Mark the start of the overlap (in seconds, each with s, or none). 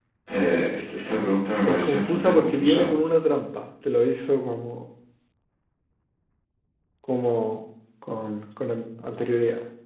1.6 s